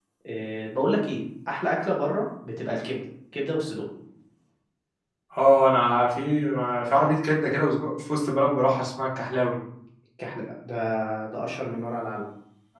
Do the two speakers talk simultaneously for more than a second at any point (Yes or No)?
No